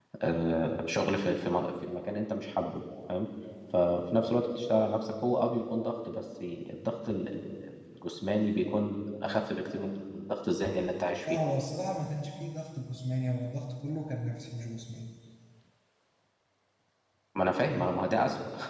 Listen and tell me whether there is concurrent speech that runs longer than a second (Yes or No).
No